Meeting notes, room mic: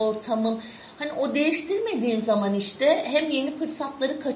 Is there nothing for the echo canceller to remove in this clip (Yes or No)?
Yes